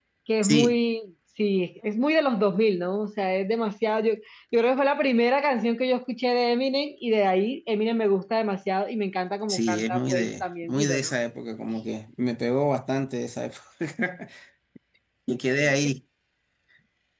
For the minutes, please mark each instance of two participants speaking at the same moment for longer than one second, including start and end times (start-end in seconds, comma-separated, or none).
9.5-11.1